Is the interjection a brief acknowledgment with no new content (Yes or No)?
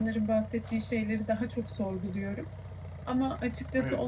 Yes